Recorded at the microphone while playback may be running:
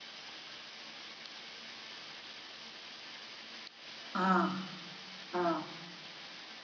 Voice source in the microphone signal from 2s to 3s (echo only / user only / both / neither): neither